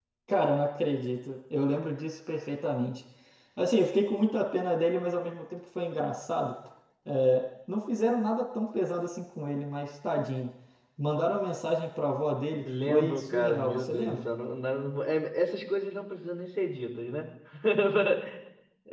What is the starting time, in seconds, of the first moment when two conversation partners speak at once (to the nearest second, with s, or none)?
13 s